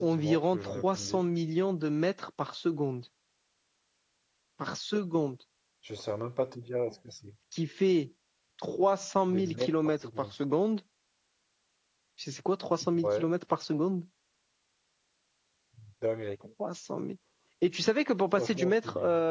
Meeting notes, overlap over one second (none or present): present